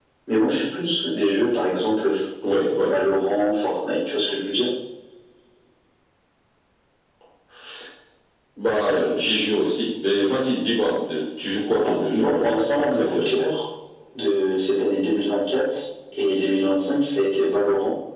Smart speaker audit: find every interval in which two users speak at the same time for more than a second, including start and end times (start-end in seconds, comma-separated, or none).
11.8-13.5